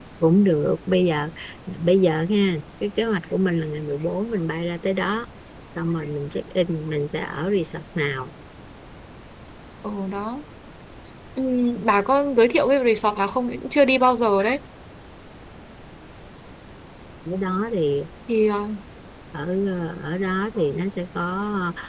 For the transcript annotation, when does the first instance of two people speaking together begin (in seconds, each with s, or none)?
none